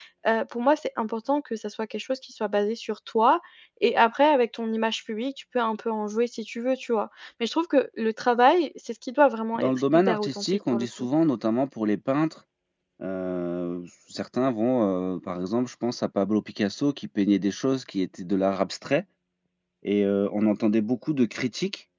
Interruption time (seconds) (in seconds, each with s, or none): 9.6 s